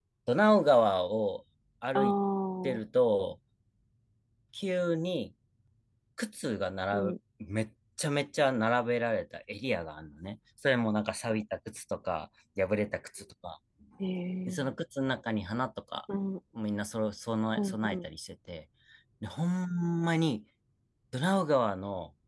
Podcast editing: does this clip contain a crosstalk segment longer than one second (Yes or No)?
No